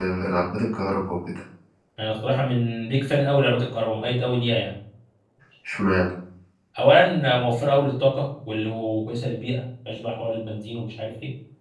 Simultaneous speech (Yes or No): No